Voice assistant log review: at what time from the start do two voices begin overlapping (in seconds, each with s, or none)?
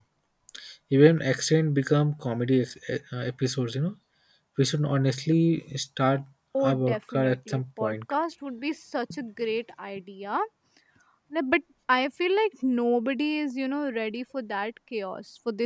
6.6 s